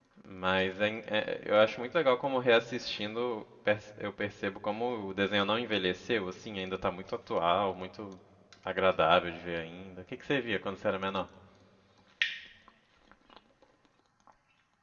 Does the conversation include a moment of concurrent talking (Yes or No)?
No